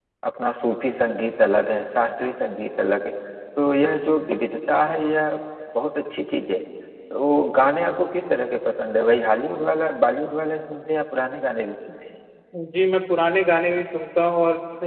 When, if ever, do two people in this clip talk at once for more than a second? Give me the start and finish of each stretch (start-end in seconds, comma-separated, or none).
none